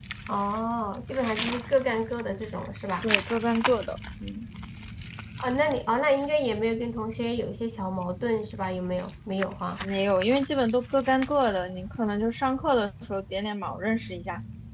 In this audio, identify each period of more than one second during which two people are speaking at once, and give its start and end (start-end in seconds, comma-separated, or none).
none